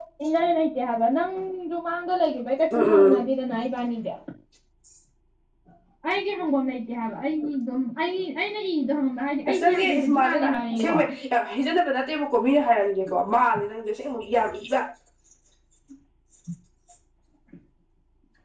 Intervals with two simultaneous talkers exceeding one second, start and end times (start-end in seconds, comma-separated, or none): 9.5-11.0